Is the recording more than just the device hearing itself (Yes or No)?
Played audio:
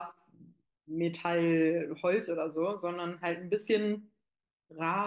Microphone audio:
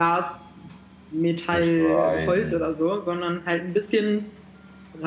Yes